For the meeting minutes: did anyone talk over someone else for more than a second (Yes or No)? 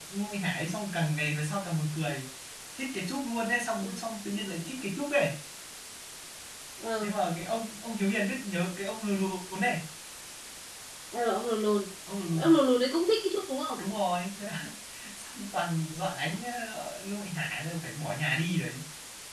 No